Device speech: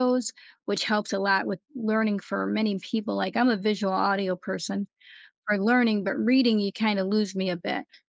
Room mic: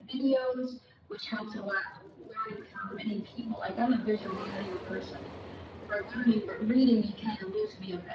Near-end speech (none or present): none